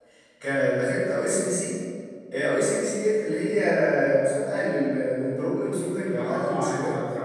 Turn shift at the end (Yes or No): Yes